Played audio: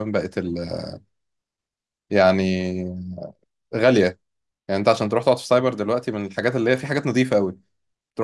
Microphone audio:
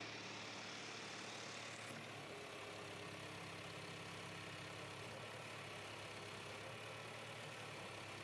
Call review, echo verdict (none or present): none